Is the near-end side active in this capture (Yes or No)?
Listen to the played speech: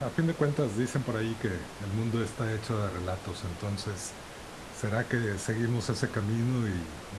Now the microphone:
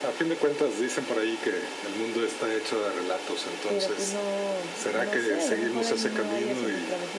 Yes